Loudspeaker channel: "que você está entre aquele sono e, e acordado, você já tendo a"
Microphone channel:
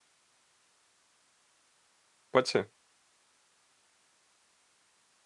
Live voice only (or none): Pode ser.